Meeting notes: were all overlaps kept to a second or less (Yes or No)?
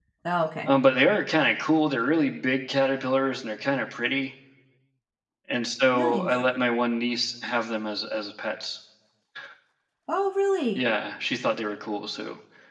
Yes